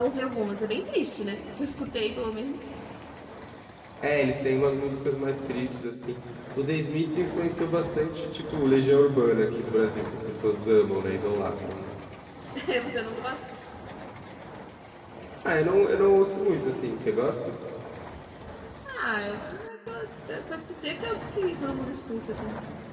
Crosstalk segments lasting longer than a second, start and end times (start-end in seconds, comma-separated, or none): none